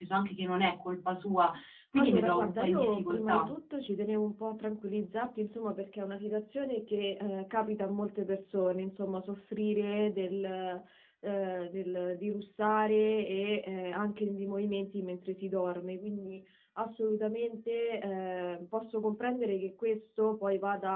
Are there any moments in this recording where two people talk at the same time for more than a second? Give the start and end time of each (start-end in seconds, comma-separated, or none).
2.0-3.5